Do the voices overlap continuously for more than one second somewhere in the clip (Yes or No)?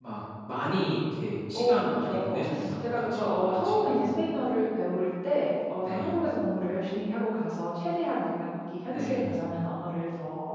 Yes